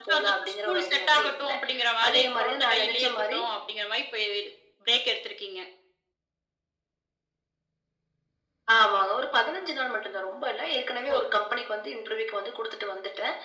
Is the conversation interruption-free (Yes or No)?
No